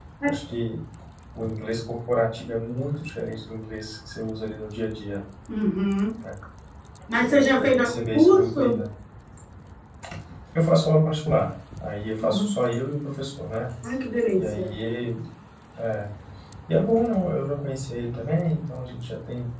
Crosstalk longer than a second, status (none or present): present